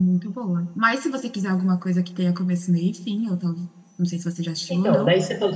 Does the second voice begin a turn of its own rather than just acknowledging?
Yes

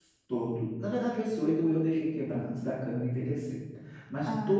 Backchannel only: Yes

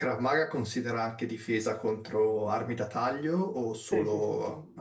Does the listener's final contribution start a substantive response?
Yes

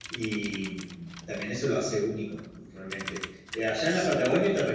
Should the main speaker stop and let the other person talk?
No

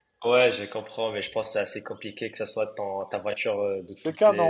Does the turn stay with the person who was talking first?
No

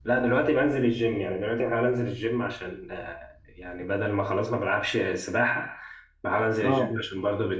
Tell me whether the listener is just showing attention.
Yes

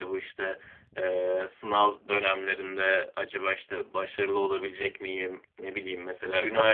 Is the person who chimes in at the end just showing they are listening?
Yes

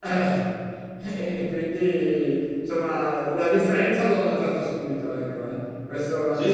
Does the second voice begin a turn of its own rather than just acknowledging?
No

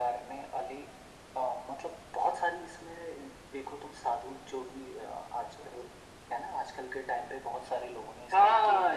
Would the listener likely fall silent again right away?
No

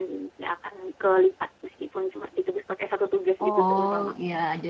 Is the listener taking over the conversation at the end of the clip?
Yes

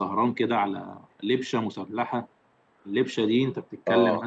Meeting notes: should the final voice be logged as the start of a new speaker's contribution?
No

